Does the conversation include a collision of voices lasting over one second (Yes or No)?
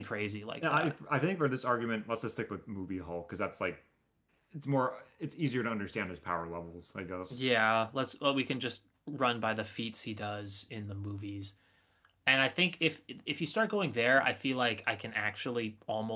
No